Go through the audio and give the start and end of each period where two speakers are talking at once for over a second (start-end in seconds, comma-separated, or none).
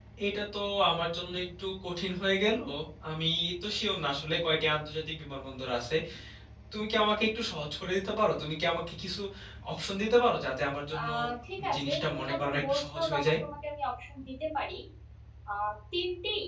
11.7-13.4